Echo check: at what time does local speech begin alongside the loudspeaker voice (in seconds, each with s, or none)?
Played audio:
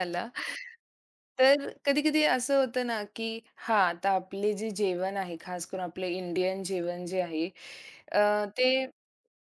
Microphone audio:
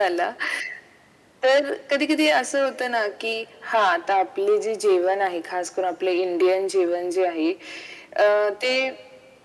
none